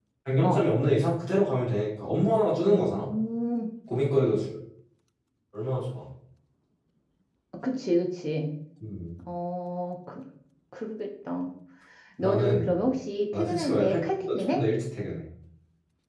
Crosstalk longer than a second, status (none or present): present